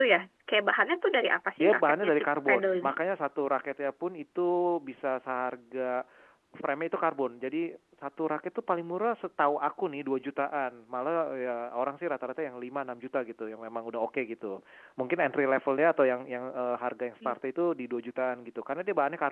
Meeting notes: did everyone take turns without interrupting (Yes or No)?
No